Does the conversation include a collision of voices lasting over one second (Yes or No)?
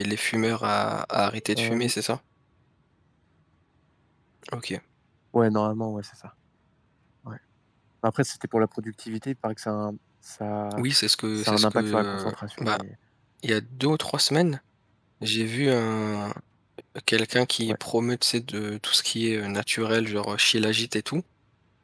Yes